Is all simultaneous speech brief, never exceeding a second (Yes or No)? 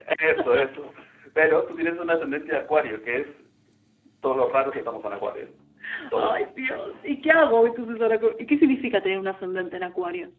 Yes